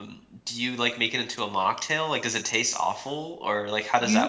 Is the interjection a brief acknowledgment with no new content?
No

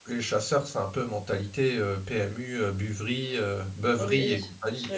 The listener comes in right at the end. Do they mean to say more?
Yes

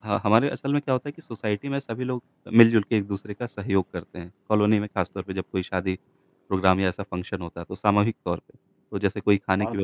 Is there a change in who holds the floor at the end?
No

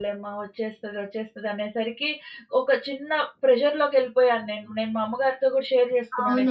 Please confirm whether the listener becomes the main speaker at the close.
Yes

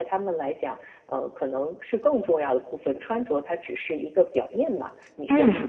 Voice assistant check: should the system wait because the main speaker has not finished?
No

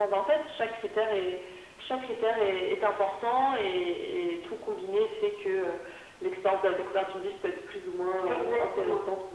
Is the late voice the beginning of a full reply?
Yes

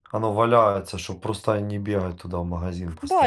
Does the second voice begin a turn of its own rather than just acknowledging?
Yes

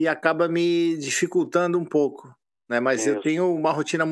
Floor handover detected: No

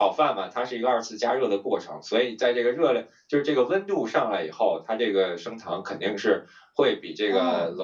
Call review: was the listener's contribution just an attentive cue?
Yes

